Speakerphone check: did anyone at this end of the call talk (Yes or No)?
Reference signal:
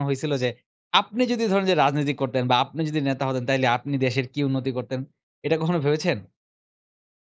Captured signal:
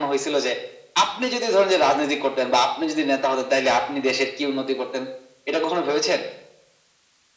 No